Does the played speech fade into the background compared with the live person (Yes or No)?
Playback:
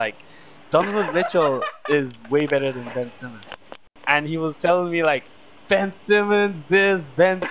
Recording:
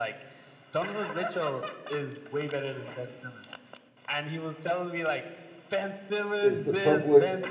Yes